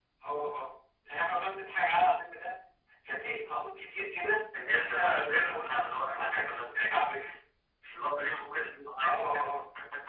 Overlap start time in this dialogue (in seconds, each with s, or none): 4.8 s